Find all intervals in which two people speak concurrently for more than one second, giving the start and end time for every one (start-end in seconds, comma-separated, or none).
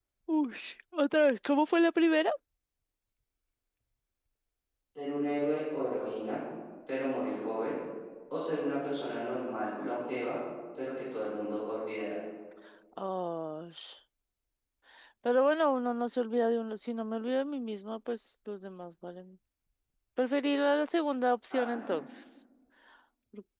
none